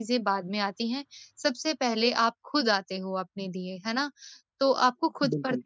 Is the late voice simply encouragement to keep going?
Yes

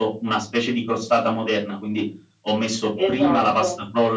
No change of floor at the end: Yes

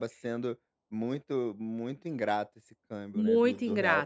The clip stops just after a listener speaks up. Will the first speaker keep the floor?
No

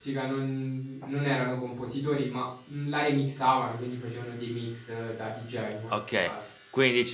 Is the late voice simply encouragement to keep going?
No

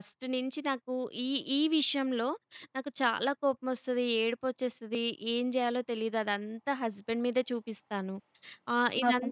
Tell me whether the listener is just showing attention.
Yes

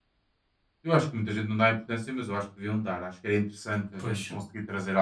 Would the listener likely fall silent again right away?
Yes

